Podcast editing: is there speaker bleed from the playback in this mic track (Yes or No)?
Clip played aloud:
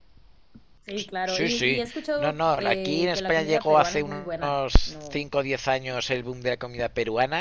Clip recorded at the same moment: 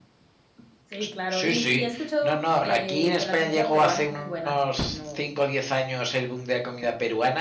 Yes